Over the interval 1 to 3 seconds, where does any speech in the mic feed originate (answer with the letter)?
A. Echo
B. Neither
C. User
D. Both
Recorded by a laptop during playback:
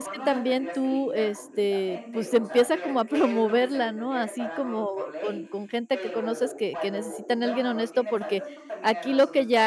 D